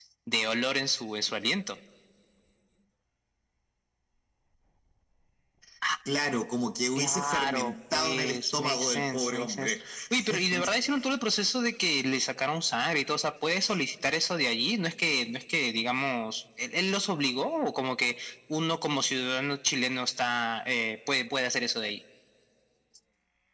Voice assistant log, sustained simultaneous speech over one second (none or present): present